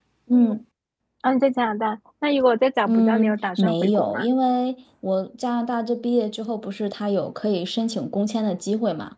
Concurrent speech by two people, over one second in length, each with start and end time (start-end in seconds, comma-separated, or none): 2.9-4.2